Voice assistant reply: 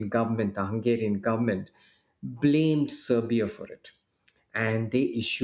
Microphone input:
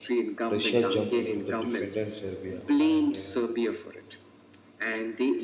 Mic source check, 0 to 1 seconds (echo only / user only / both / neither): both